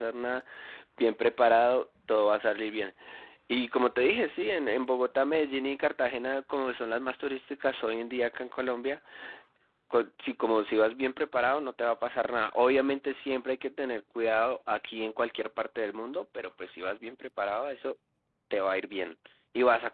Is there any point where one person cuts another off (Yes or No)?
No